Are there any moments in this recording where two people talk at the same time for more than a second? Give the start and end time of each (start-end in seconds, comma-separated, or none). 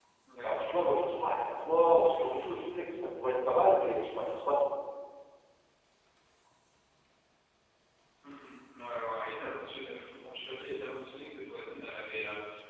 none